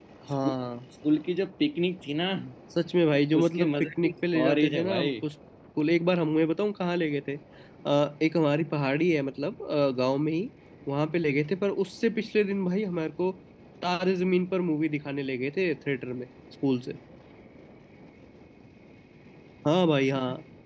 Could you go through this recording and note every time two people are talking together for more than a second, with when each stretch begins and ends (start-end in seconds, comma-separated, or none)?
3.4-5.1